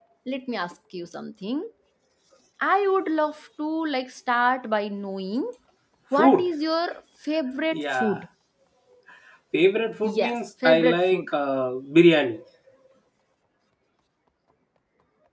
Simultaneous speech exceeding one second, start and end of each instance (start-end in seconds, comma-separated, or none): 10.0-11.3